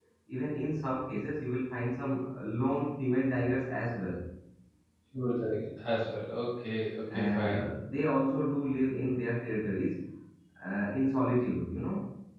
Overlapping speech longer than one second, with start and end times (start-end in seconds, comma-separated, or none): none